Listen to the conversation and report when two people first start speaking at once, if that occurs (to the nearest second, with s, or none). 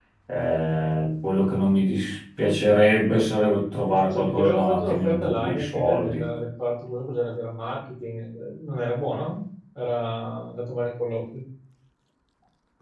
4 s